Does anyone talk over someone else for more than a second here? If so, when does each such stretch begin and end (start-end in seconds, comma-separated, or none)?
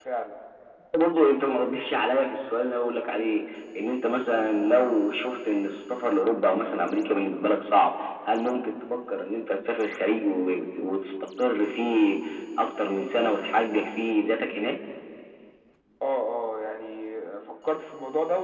none